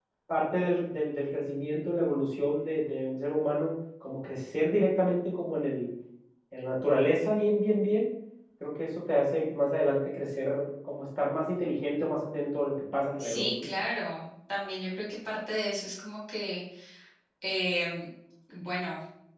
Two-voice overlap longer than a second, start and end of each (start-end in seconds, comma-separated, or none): none